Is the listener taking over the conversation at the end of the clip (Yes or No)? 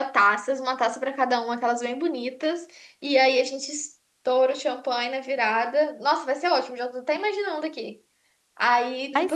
No